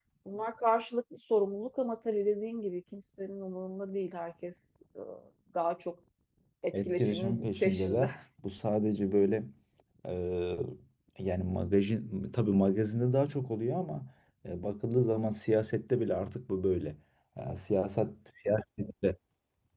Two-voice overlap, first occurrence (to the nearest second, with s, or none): 7 s